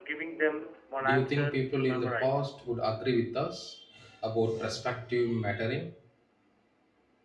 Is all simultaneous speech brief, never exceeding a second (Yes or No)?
No